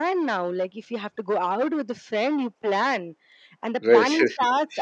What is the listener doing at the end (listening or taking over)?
listening